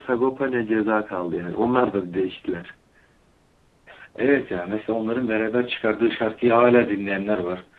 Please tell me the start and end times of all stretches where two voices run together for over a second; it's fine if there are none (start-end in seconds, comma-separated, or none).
none